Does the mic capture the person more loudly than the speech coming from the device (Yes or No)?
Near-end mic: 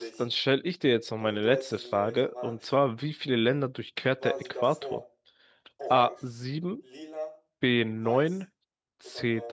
Yes